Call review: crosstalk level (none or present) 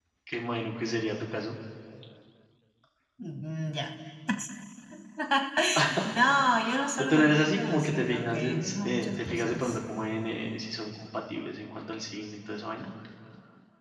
present